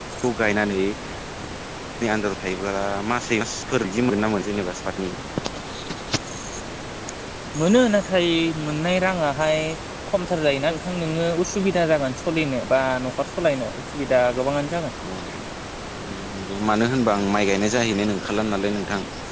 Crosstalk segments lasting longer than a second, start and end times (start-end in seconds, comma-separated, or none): none